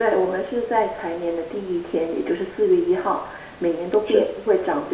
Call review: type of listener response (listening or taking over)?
listening